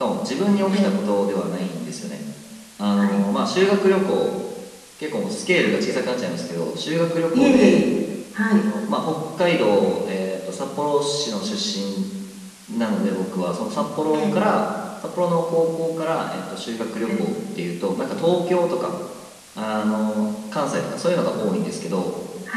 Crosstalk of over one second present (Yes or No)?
No